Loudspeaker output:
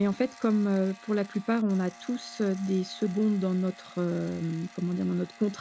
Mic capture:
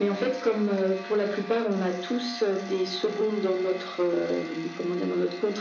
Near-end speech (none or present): none